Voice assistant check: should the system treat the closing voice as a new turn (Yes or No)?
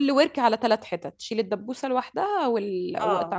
Yes